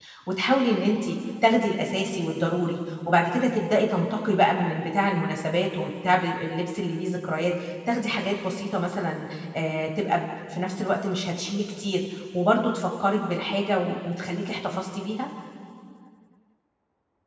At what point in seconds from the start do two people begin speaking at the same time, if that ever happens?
none

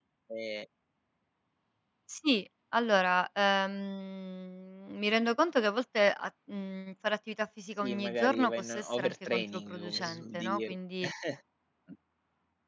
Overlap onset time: 8 s

